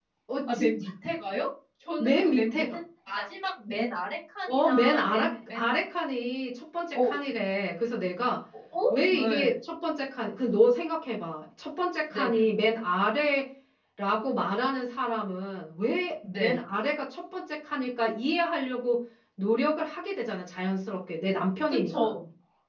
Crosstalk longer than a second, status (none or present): present